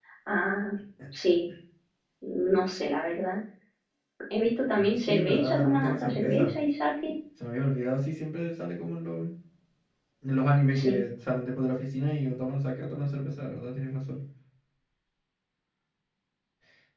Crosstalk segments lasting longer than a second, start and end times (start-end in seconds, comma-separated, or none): 4.8-6.5